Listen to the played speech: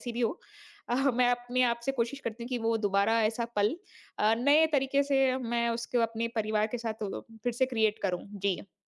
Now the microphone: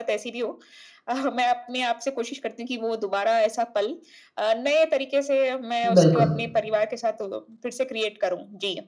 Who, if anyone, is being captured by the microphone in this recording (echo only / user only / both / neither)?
both